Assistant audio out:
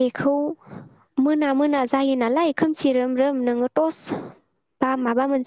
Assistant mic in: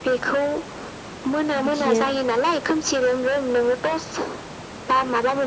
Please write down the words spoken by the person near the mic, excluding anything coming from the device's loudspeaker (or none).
बिदिनो